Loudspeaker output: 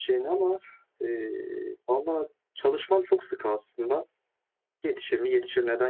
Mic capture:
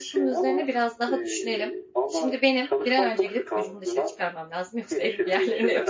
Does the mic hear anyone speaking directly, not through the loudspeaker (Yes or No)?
Yes